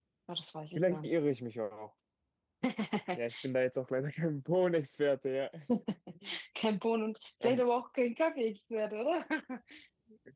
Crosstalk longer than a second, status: none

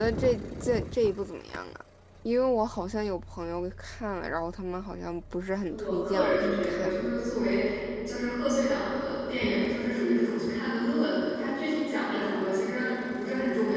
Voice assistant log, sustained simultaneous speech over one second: present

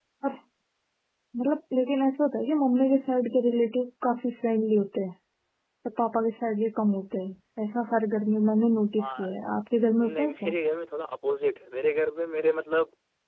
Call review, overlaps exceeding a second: none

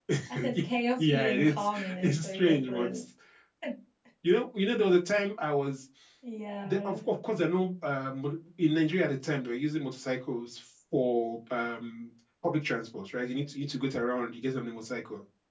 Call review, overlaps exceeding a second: present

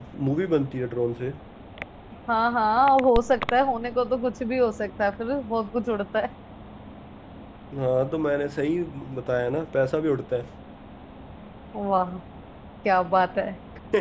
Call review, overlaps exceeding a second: none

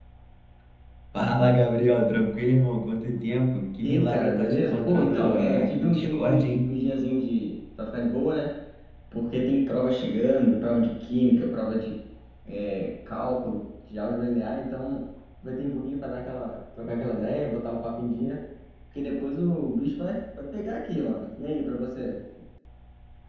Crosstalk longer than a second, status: present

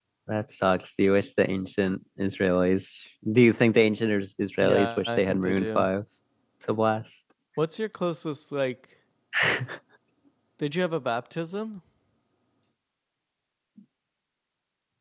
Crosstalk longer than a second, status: present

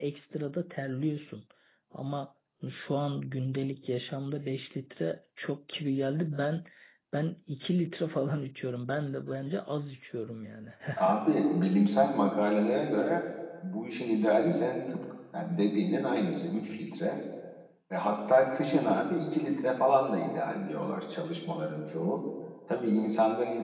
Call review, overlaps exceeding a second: none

